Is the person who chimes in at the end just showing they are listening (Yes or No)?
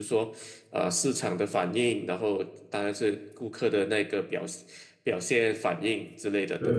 No